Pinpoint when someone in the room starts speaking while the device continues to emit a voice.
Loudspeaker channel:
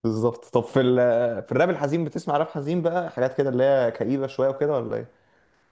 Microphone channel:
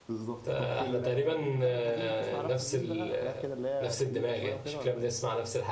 0.4 s

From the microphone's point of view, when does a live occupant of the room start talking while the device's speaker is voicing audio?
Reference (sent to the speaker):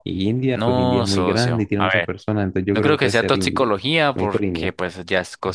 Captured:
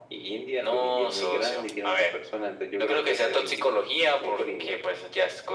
none

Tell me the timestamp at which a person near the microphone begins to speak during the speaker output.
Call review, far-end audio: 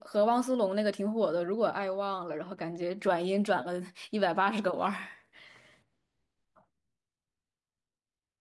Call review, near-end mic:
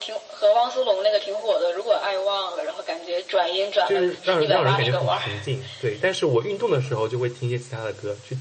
3.8 s

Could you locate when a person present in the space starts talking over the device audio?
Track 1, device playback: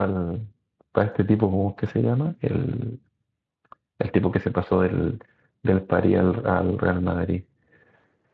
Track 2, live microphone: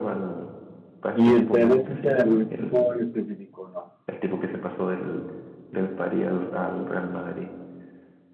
1.1 s

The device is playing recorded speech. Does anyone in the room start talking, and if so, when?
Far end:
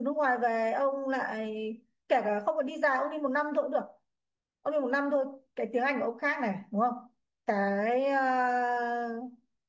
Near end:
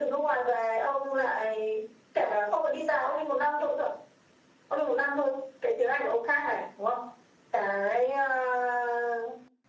none

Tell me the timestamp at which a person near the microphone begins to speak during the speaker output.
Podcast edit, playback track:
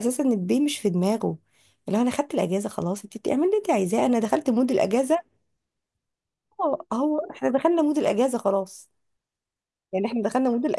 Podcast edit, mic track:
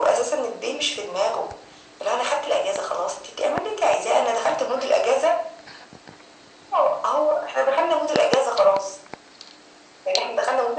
none

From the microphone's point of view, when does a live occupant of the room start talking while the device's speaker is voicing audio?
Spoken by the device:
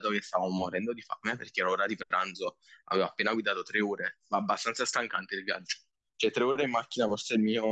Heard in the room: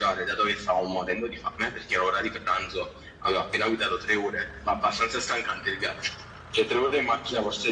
none

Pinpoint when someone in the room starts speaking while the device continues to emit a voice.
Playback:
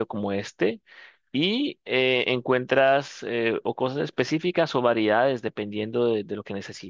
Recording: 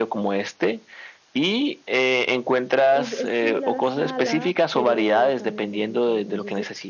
2.8 s

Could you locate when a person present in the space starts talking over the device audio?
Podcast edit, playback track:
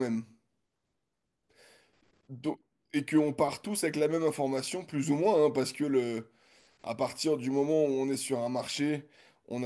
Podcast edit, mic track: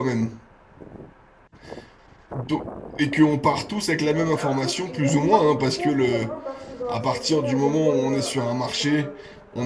4.0 s

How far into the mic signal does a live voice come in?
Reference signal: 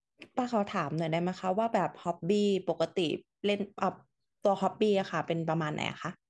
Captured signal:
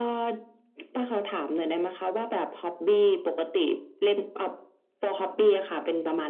none

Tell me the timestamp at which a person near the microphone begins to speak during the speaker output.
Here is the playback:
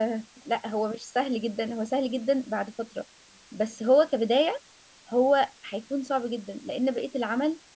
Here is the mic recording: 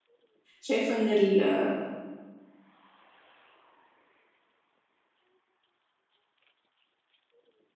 0.6 s

